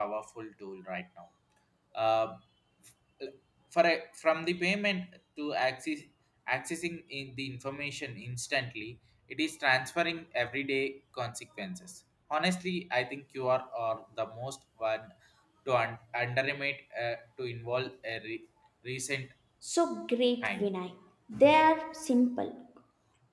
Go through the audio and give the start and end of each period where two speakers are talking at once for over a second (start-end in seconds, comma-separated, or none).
none